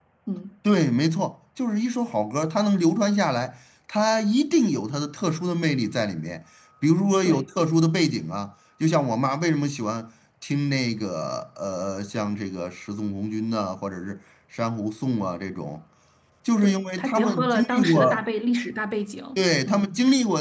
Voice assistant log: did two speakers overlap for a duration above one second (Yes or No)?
Yes